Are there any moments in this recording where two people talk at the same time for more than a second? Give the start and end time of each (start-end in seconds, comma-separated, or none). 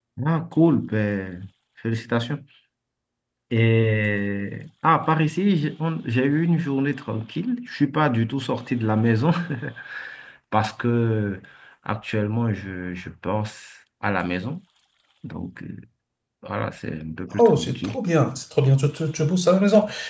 none